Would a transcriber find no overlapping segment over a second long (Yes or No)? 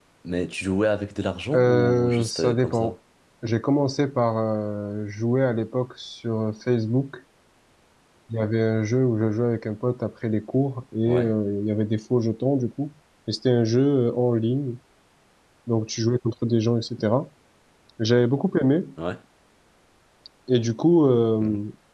No